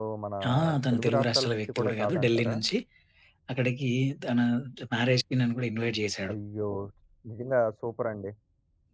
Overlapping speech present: Yes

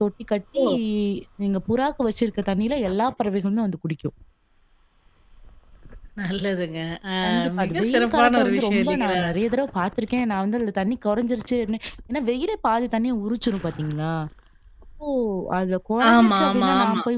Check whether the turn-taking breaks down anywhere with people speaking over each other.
Yes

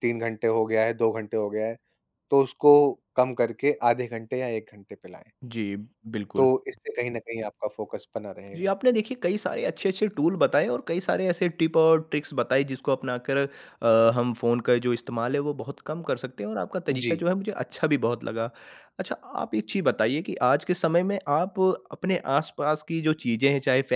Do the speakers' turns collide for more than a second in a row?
No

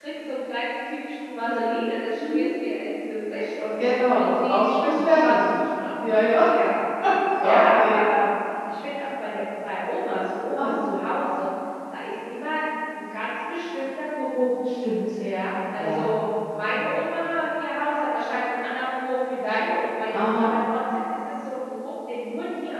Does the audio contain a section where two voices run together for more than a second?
Yes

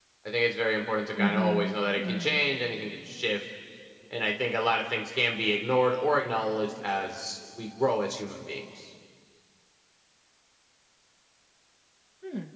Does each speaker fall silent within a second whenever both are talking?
No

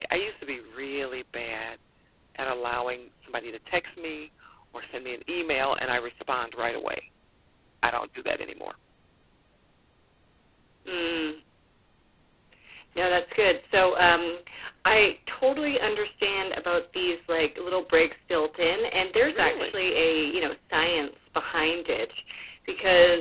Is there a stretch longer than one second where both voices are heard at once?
No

